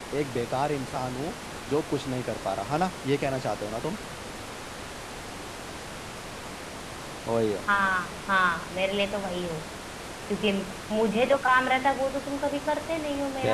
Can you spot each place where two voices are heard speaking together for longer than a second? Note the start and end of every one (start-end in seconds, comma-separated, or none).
none